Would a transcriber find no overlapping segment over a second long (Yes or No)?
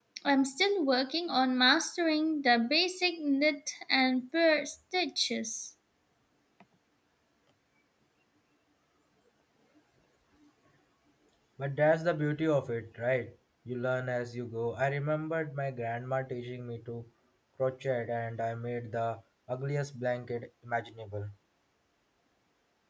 Yes